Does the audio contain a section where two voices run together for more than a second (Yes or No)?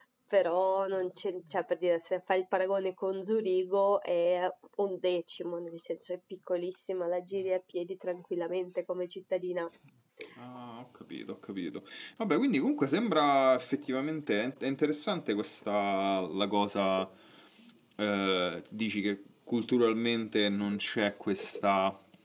No